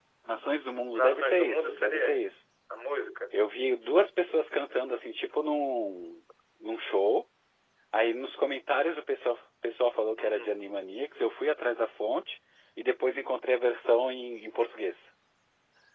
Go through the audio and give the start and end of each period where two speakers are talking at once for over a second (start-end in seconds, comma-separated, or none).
0.9-2.2